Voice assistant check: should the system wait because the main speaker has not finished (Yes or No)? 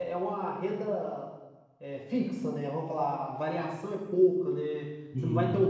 Yes